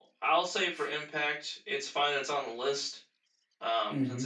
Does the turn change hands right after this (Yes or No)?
No